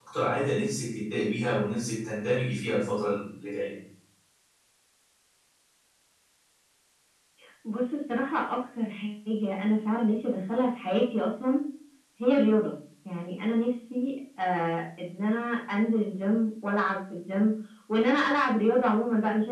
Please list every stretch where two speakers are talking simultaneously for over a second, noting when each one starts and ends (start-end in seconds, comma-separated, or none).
none